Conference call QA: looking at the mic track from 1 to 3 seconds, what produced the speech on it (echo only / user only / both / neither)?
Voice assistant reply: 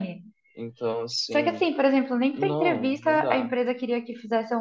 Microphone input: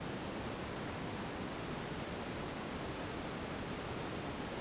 neither